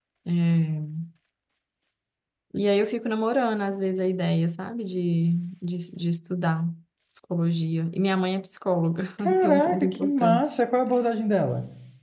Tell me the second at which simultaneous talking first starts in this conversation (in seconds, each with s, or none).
9.4 s